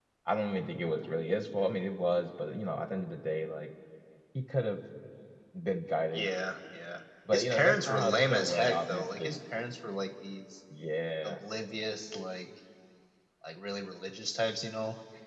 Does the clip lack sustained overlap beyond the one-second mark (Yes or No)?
No